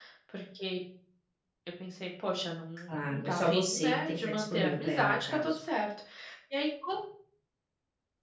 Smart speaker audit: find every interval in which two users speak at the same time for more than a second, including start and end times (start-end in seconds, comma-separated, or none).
2.9-5.6